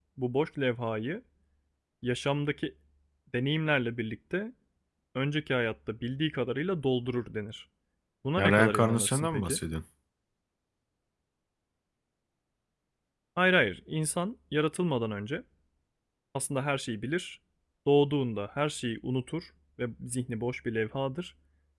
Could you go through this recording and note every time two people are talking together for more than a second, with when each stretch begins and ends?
8.4-9.6

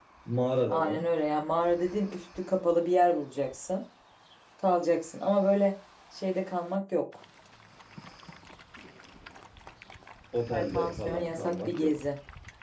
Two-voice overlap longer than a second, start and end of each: 10.5-11.9

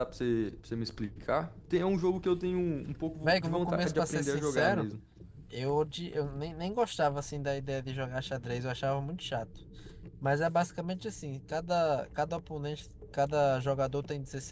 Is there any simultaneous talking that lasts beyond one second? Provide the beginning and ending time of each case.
3.2-4.9

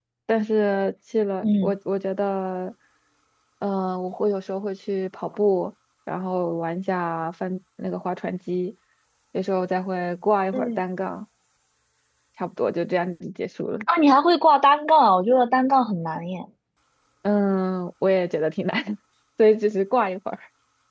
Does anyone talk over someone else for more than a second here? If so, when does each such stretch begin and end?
none

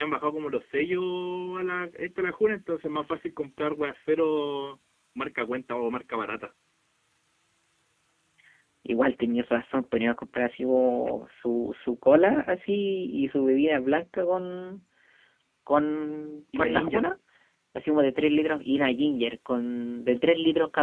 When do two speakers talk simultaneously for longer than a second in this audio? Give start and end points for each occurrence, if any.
none

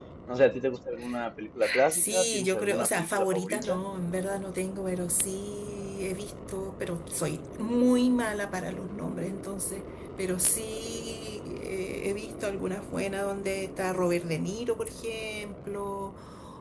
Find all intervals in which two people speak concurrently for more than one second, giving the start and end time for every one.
1.9-3.8

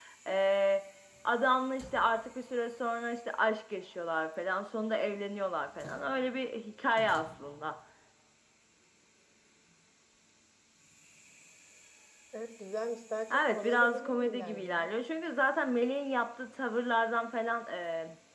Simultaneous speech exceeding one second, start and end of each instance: 13.5-14.9

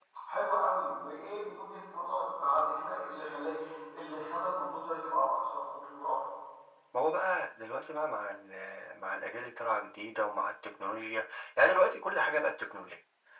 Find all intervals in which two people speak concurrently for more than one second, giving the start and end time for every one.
none

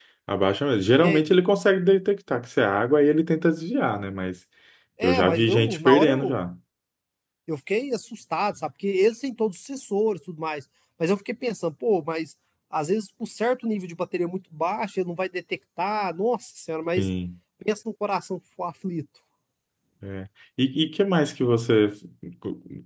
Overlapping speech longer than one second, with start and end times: 5.0-6.4

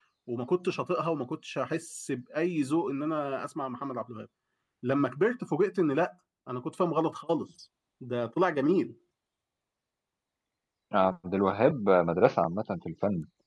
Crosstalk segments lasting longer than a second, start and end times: none

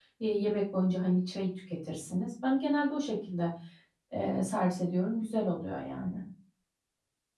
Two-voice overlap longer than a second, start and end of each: none

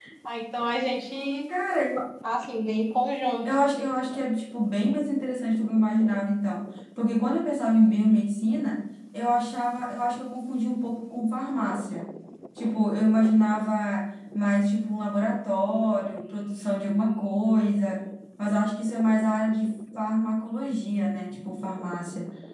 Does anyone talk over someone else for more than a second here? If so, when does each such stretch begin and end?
none

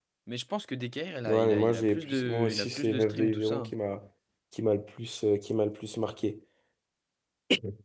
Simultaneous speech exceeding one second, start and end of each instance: 1.2-3.7

